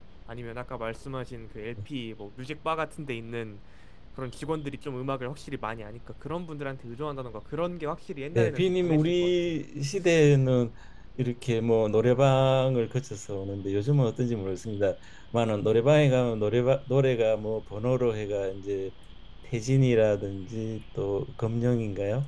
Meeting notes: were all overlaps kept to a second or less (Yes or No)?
No